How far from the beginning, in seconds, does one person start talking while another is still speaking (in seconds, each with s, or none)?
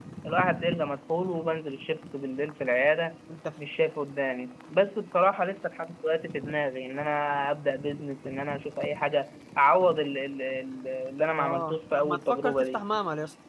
11.3 s